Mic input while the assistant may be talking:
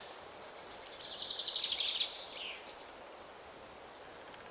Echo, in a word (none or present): none